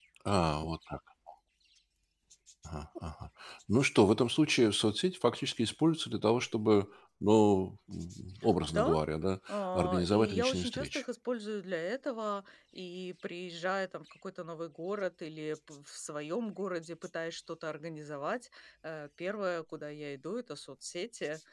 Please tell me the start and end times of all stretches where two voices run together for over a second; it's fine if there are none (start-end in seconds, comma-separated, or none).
9.5-11.0